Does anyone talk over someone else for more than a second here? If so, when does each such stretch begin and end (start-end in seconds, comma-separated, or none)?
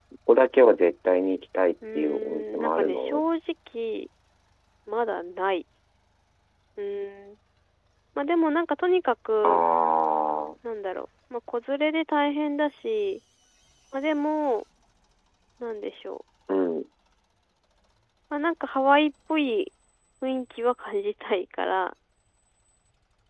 2.0-3.2